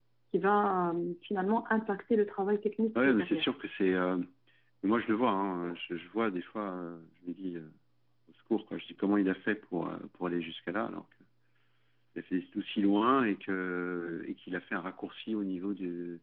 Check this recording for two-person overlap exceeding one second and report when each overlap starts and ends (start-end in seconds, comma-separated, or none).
none